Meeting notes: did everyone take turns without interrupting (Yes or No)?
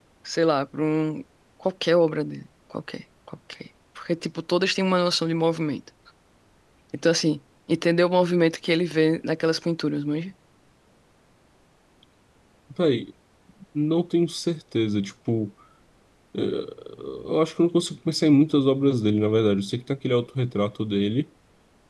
Yes